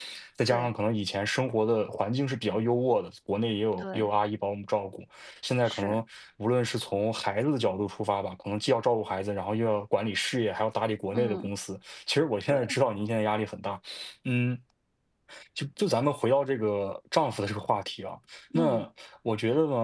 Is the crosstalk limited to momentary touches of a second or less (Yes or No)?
Yes